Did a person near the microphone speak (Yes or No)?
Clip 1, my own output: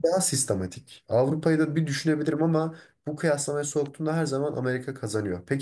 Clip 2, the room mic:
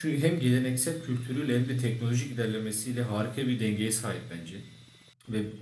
Yes